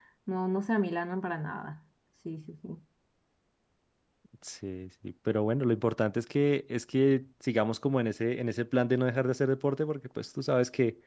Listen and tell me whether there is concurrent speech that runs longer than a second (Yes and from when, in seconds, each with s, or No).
No